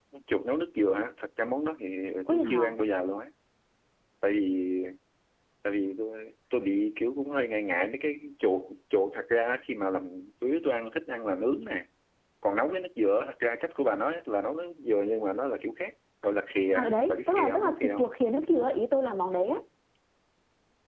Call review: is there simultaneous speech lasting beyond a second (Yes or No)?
Yes